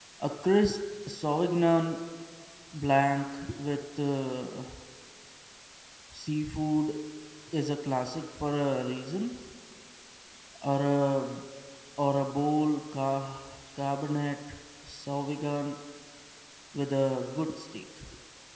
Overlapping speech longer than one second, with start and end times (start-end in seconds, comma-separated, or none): none